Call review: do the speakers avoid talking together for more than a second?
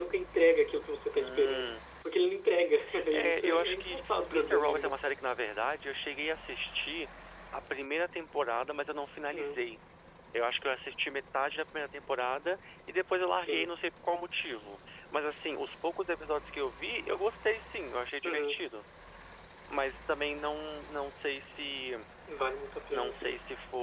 No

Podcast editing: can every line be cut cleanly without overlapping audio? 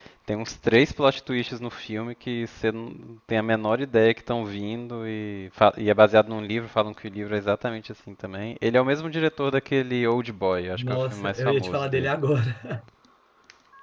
No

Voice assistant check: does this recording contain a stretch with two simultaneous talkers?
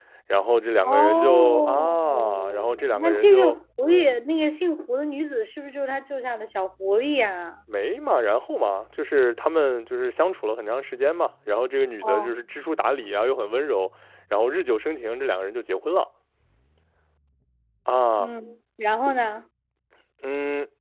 Yes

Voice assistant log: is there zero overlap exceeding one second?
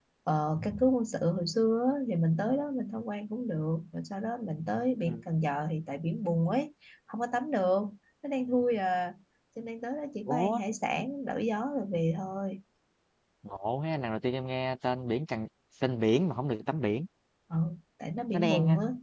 Yes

